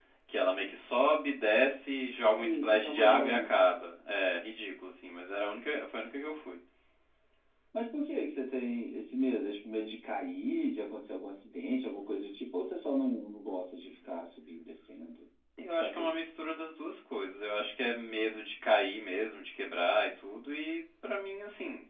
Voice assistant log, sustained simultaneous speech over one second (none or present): present